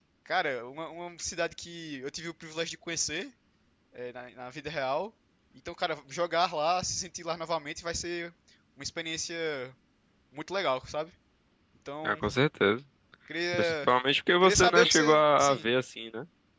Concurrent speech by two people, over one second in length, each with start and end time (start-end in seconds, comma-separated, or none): 14.4-15.7